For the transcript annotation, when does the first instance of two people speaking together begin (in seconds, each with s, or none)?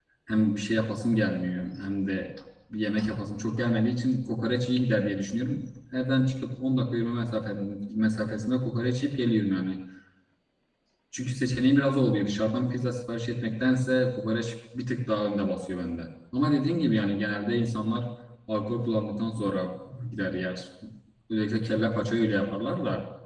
none